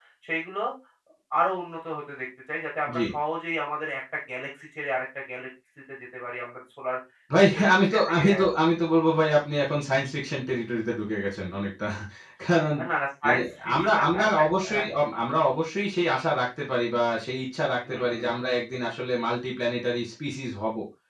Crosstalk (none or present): present